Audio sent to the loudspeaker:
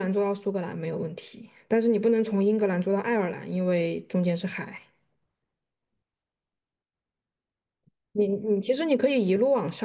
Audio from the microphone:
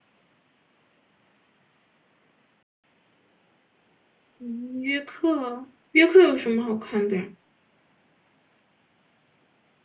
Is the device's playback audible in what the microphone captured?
No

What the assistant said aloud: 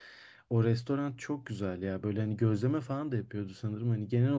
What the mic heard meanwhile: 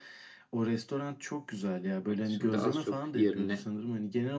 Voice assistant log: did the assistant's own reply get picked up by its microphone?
Yes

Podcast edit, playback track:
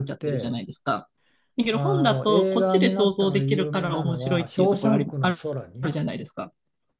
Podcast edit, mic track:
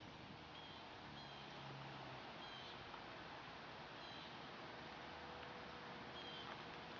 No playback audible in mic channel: Yes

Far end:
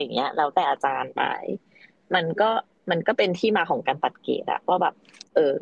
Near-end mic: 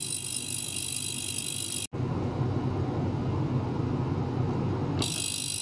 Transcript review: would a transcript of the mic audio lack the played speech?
Yes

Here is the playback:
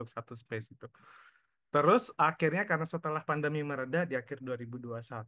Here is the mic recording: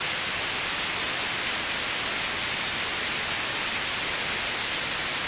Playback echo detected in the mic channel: No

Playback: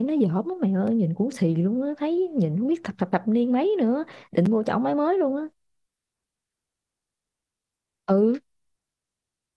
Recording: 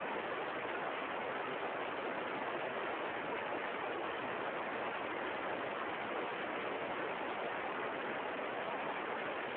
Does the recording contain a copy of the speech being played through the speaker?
No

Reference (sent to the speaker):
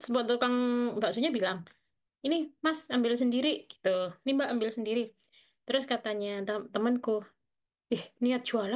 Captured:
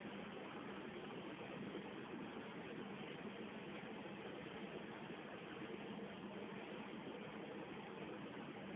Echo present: No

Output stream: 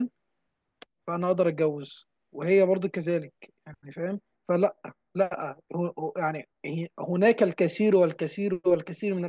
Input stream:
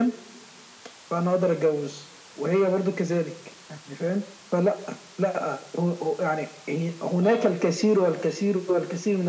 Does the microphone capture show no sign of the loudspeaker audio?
No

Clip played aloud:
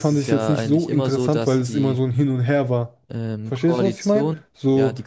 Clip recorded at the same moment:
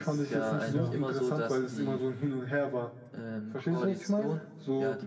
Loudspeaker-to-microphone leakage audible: Yes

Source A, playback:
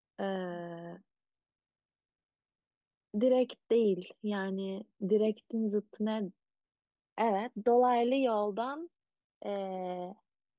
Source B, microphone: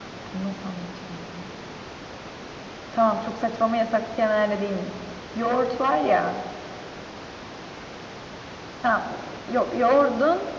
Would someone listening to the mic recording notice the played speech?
No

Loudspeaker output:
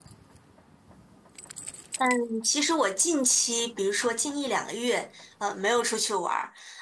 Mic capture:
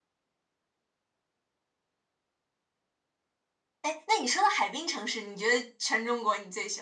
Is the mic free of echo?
Yes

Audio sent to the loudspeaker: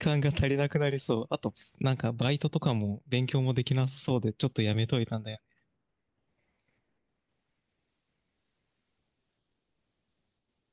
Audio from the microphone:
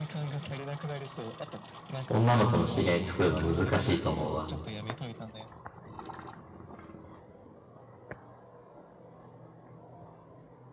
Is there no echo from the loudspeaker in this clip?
No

